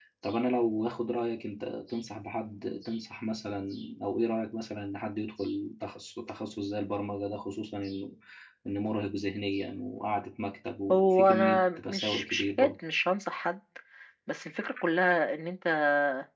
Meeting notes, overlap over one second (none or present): present